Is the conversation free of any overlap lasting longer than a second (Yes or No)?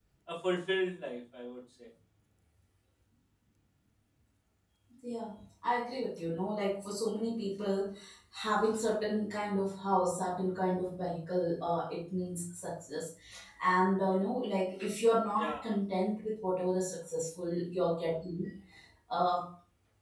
Yes